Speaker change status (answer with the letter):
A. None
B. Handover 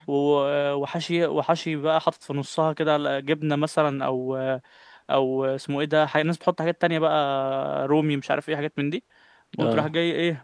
A